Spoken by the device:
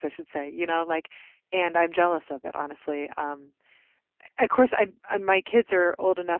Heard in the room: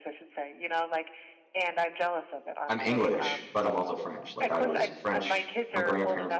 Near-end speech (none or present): present